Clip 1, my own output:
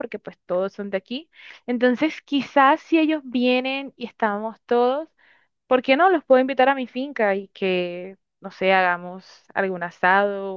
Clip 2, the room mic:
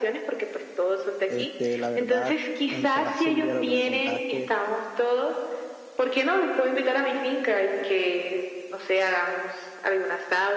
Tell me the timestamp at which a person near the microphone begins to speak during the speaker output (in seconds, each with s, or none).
1.3 s